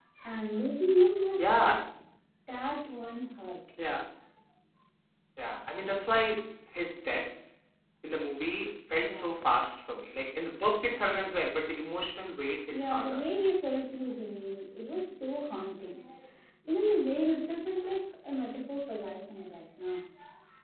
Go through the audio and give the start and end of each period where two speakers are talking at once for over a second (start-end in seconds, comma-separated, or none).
none